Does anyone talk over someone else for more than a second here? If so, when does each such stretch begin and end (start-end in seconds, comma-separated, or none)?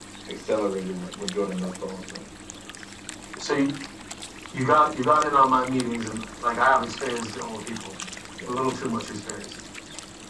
none